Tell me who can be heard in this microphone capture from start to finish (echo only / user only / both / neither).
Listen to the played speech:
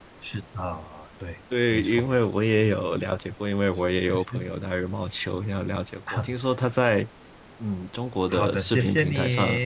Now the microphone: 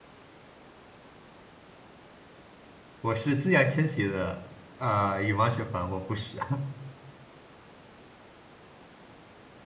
user only